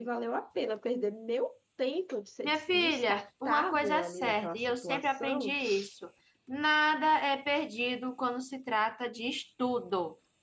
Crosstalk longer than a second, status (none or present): present